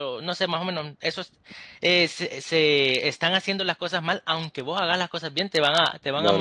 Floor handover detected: Yes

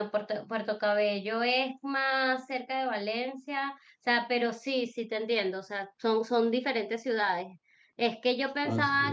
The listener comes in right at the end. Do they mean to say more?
No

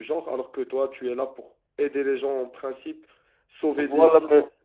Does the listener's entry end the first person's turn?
Yes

